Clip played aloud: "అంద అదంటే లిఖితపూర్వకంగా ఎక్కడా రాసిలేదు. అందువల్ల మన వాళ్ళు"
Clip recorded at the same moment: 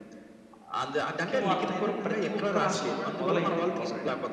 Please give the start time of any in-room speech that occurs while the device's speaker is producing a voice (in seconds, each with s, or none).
1.1 s